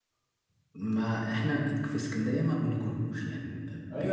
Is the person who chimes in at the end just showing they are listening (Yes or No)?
No